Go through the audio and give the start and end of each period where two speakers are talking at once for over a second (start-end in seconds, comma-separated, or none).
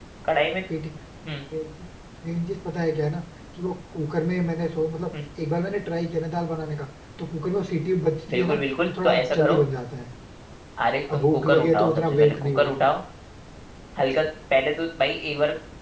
8.3-9.6, 11.1-12.8